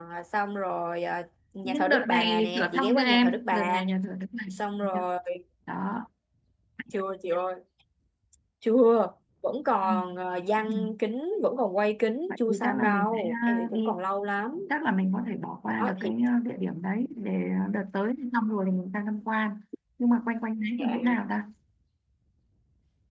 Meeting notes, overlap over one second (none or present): present